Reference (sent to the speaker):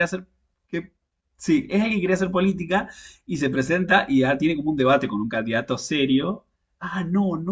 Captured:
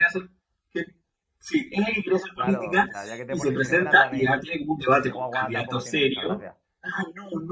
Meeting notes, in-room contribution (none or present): present